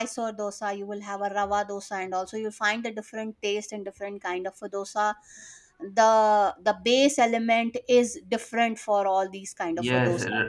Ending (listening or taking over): taking over